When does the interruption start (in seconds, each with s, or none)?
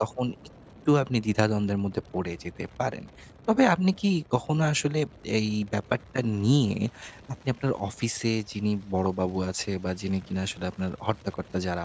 none